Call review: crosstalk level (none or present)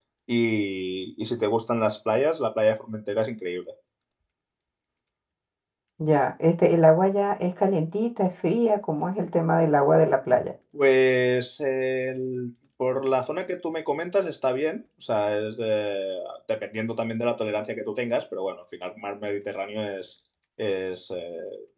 none